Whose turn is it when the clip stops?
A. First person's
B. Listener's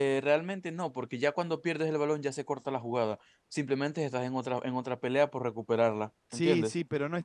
B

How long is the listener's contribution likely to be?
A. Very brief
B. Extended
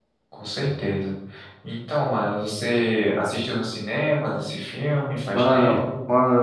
B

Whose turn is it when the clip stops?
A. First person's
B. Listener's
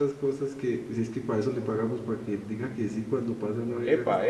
B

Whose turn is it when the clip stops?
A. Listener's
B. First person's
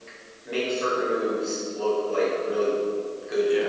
B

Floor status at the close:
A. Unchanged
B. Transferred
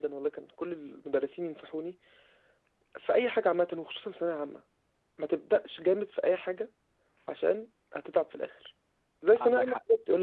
A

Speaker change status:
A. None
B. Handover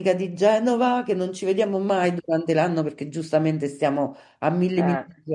A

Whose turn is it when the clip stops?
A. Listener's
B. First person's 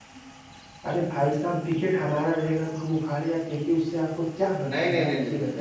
A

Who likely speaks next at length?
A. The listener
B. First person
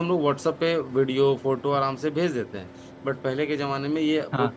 B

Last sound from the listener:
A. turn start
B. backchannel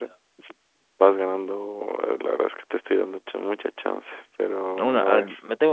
A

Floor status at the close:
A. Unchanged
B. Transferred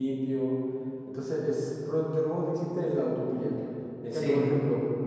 A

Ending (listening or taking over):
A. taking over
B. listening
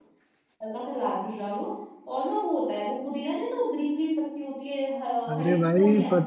A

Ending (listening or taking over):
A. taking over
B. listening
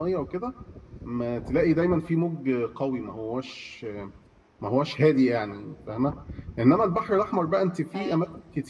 B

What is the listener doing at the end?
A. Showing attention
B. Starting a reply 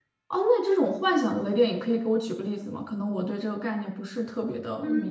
B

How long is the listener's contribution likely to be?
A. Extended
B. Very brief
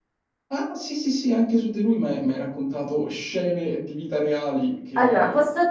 A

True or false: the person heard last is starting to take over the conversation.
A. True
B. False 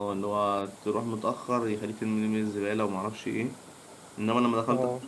B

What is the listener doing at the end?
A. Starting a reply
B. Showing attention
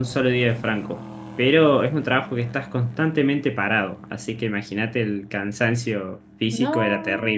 A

